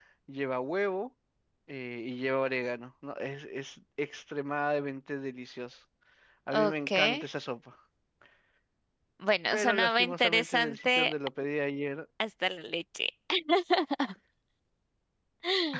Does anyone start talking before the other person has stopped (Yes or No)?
Yes